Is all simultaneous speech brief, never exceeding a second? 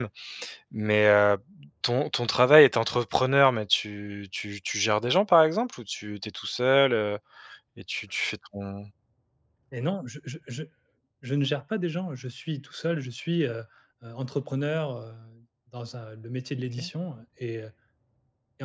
Yes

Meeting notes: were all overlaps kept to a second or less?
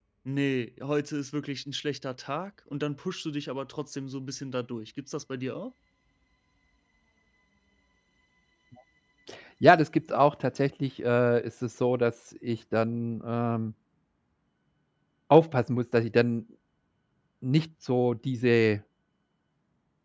Yes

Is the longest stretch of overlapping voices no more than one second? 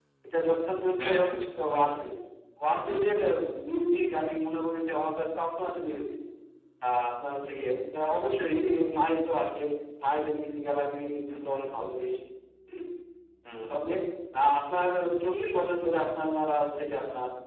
Yes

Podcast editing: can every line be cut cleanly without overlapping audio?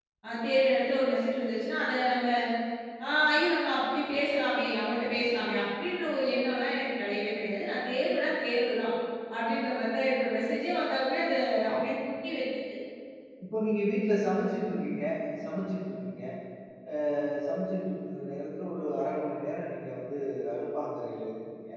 Yes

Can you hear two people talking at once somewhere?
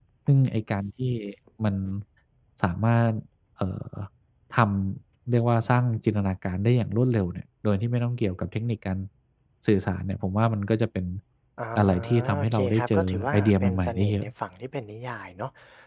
Yes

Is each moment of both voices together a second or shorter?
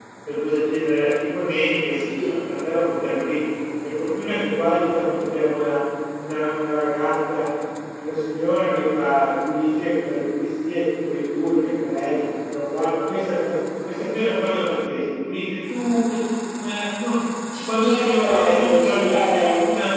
No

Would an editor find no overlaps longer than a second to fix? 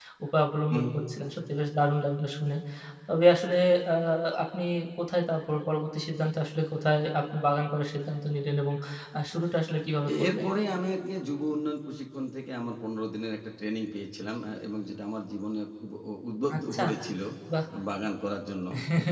Yes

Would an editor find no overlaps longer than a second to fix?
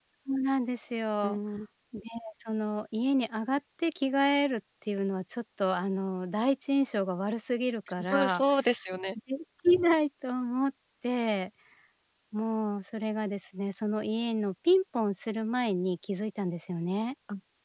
Yes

